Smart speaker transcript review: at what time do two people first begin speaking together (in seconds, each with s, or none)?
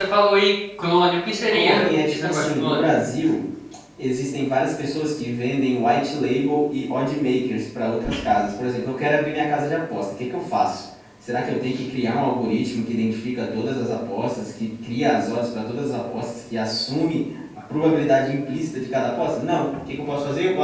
1.5 s